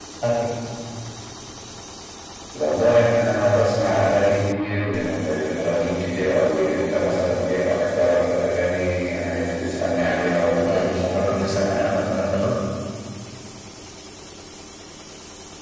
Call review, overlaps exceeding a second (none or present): present